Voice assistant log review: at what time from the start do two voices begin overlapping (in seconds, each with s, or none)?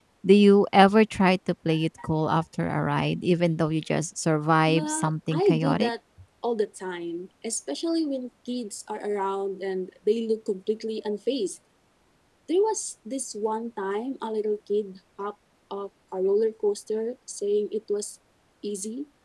4.7 s